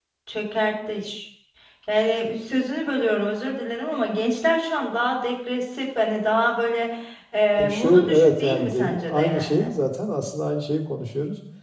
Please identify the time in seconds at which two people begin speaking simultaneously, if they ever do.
8 s

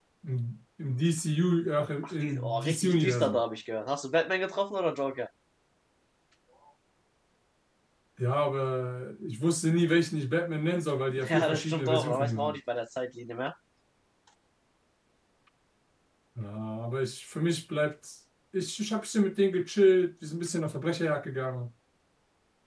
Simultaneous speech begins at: 2 s

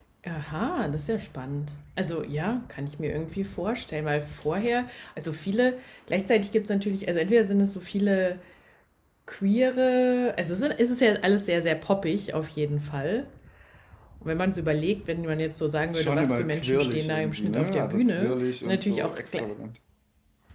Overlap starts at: 16 s

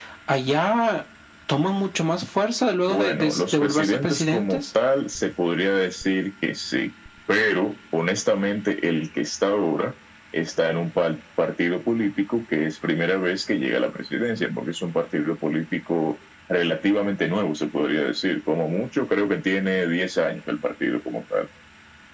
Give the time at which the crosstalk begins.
3 s

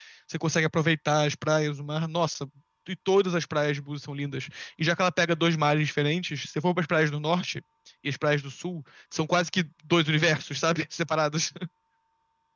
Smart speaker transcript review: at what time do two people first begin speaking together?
none

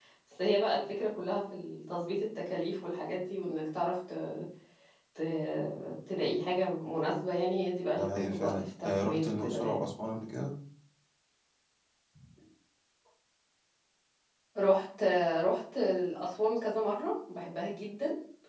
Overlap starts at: 8 s

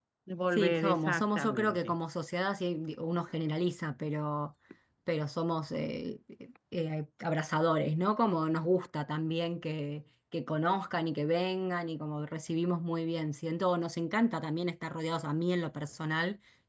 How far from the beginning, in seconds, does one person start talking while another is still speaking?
1 s

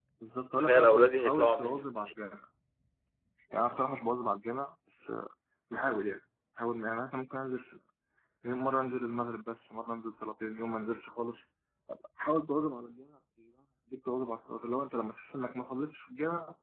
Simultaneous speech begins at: 1 s

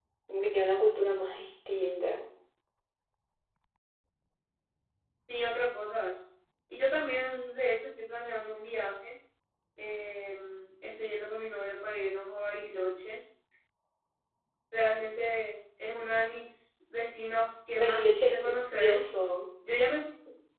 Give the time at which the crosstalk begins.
18 s

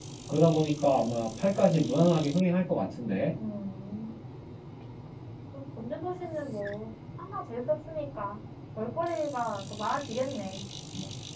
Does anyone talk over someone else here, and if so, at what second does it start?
none

